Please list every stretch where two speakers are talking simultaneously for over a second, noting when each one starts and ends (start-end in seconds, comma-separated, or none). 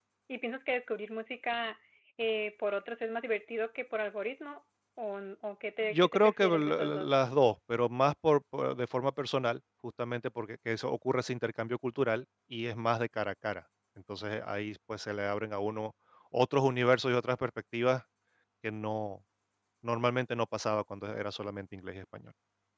5.9-7.1